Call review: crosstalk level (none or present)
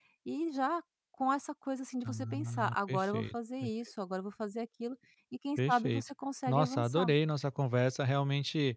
present